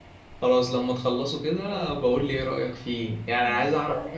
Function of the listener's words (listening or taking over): listening